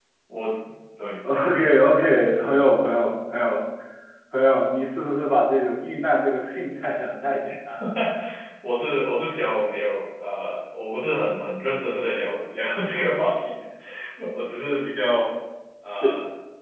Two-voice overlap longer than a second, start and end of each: none

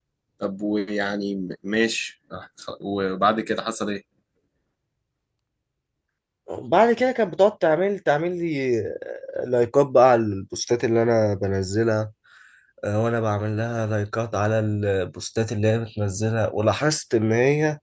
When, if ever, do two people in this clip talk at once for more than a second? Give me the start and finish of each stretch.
none

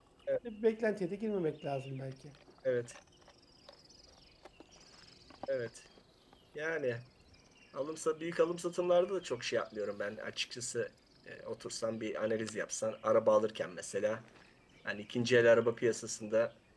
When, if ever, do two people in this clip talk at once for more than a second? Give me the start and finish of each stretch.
none

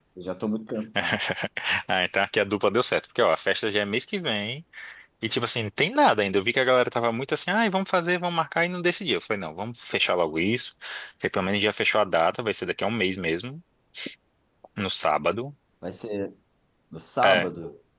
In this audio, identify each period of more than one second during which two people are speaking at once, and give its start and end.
none

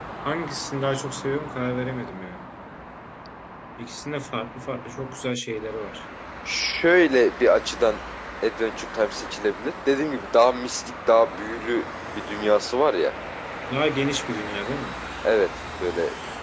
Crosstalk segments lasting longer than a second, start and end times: none

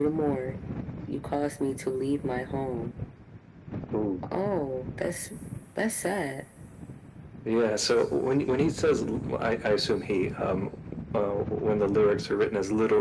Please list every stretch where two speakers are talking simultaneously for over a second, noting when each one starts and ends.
none

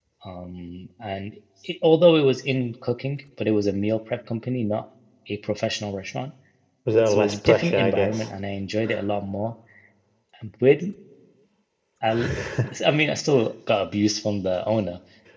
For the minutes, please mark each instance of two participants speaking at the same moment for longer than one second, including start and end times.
7.1-8.3

